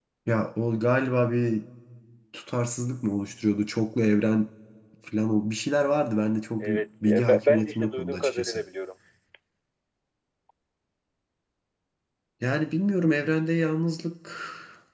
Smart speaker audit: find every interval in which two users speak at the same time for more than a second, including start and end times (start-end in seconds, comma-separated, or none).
6.6-8.6